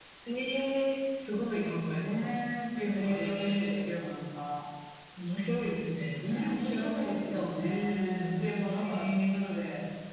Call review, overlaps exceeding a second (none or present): present